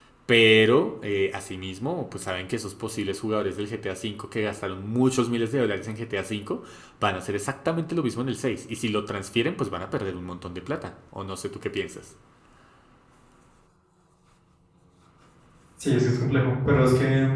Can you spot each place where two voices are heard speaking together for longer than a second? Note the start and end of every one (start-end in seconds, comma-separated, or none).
none